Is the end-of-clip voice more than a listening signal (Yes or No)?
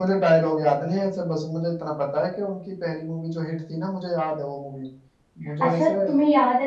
Yes